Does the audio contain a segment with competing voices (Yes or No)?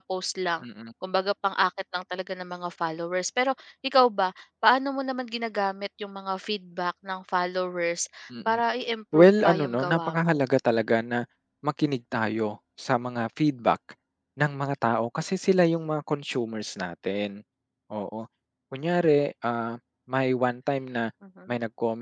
Yes